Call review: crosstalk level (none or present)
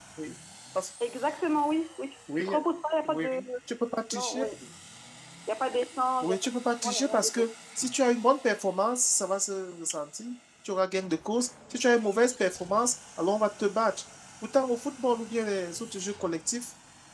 present